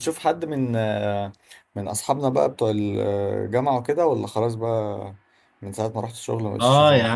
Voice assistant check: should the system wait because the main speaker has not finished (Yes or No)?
No